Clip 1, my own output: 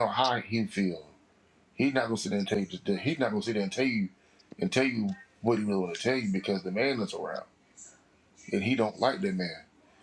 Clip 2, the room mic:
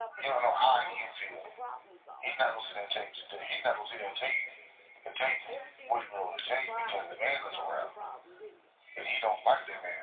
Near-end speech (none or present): present